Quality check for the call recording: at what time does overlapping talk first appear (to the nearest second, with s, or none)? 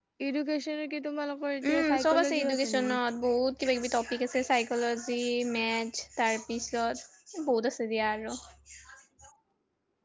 2 s